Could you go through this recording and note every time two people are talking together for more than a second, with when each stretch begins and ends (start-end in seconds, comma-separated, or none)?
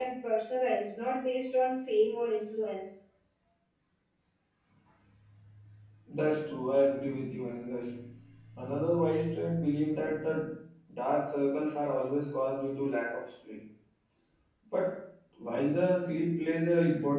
none